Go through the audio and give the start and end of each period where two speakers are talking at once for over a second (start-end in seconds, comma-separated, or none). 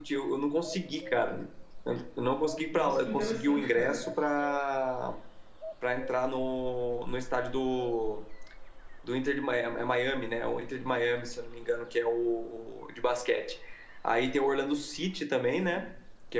2.7-4.0